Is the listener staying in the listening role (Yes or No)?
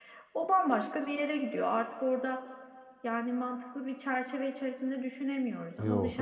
Yes